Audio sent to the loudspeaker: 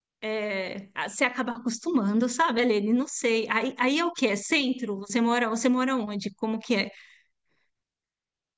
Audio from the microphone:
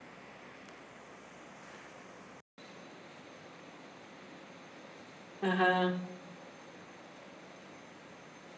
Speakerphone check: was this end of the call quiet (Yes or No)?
No